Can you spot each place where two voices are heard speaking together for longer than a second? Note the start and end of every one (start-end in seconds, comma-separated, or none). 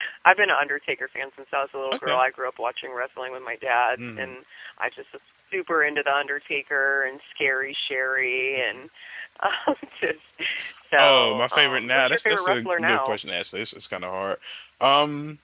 11.0-13.2